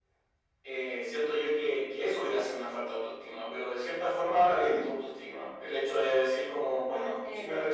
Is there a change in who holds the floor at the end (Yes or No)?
No